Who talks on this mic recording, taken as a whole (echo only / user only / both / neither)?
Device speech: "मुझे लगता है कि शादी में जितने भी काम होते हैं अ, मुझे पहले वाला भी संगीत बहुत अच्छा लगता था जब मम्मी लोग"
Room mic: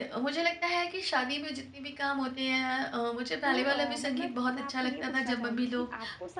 both